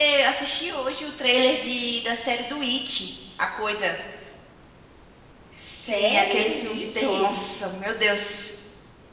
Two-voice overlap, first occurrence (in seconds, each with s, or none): 5.9 s